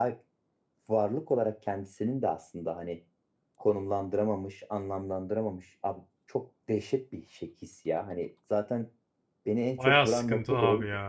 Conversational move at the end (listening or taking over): taking over